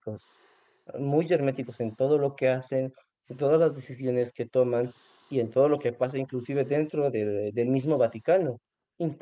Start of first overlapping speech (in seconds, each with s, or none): none